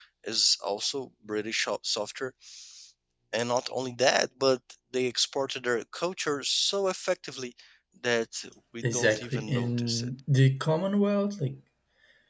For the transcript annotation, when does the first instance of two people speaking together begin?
8.8 s

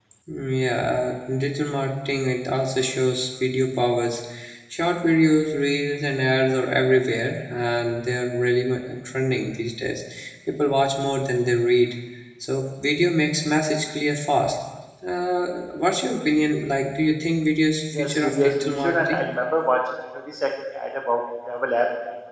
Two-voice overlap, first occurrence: 17.9 s

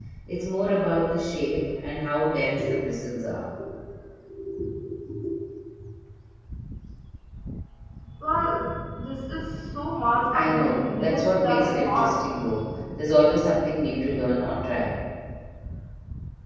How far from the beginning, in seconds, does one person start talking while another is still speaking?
10.3 s

